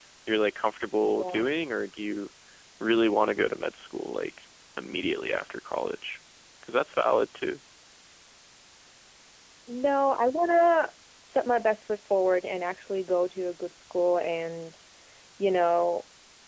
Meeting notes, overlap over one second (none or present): none